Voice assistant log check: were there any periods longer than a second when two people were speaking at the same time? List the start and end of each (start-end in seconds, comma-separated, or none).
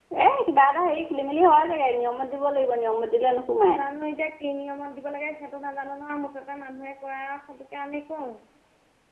none